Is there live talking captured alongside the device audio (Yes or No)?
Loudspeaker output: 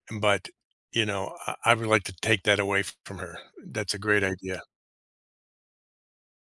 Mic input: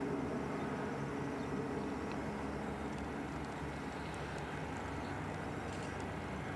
No